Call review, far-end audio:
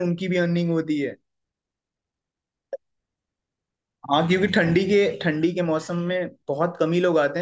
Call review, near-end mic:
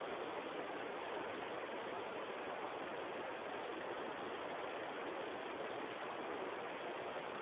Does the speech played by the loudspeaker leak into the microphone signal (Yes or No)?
No